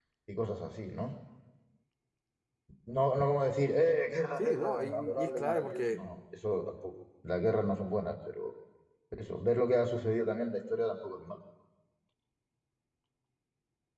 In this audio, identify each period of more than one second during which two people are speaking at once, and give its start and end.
4.4-6.0

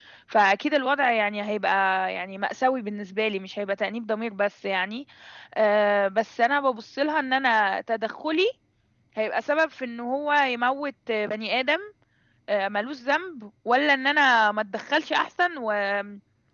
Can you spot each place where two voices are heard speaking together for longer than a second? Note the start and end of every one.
none

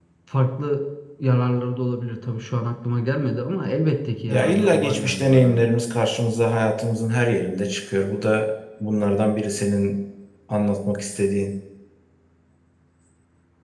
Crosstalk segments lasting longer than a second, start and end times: 4.3-5.6

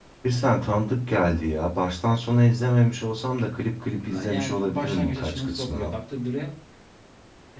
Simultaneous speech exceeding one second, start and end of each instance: 4.0-5.9

